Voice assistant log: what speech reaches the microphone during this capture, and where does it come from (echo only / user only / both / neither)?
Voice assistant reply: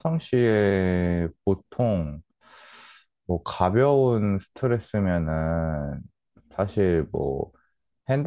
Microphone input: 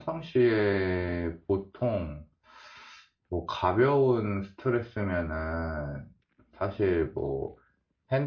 echo only